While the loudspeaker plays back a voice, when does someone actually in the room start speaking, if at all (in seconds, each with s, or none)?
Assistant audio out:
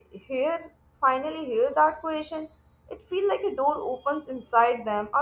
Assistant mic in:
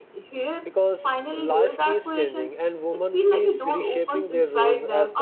0.6 s